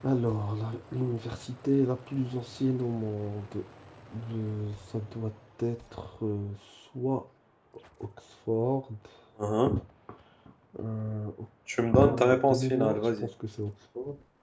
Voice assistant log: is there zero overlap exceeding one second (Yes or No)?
No